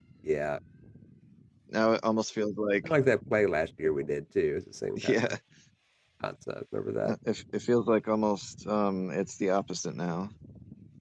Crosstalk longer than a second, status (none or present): none